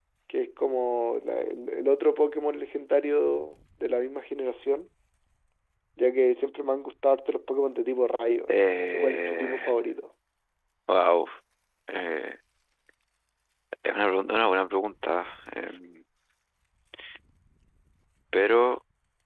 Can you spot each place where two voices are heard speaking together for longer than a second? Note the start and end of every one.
8.5-9.8

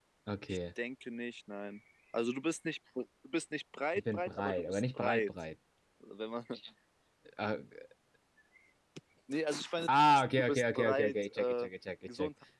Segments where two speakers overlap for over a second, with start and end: 4.0-5.3, 10.4-11.7

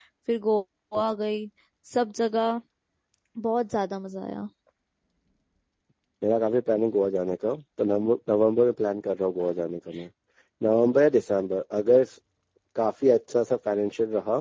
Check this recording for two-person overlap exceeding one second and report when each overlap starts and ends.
none

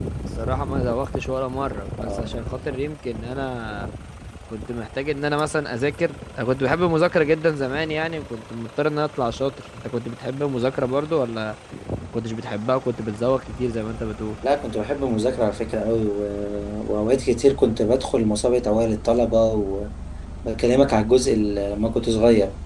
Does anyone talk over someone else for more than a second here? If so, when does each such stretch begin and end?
none

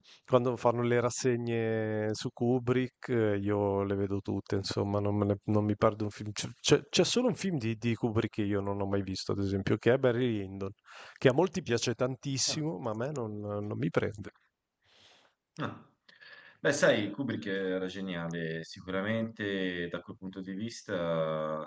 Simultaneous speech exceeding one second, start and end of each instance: none

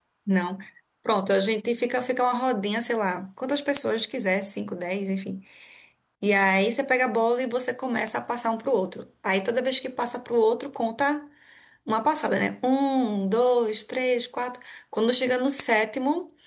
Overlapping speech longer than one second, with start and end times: none

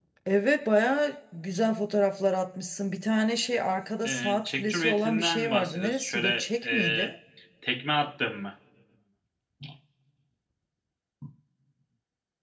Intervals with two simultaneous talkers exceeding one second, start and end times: 4.0-7.1

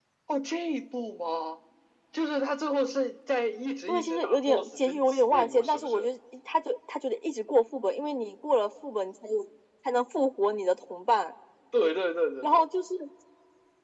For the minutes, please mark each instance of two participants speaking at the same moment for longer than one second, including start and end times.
3.9-6.1

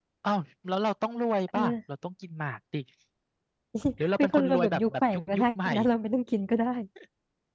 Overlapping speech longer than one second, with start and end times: 4.2-5.7

